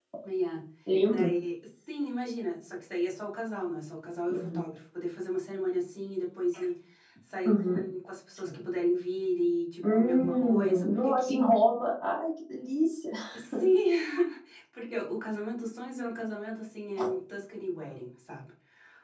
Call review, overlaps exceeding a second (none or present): present